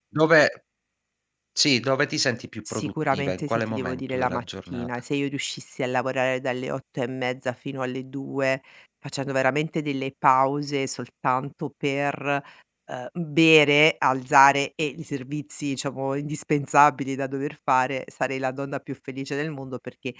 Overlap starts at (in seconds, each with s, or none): 2.7 s